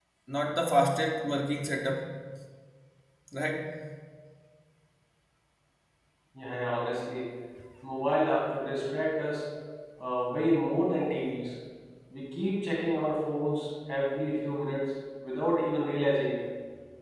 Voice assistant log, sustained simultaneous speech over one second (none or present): none